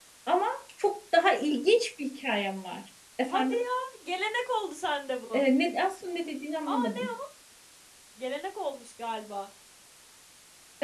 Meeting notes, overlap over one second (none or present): none